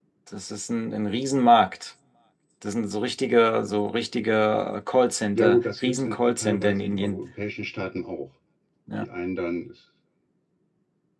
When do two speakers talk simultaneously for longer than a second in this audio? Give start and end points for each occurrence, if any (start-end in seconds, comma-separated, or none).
5.3-7.2